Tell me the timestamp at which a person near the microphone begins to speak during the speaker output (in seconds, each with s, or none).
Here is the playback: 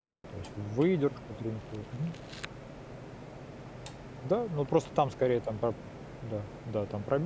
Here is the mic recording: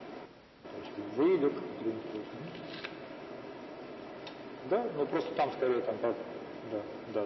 none